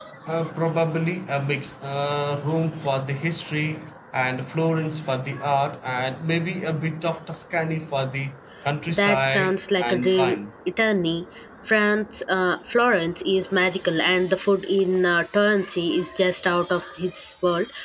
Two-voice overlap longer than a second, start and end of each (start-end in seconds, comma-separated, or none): 8.9-10.4